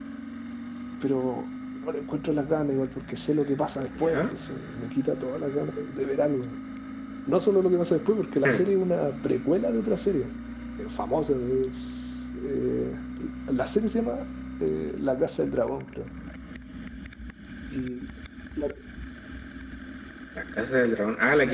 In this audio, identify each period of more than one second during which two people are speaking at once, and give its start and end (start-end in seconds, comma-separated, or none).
none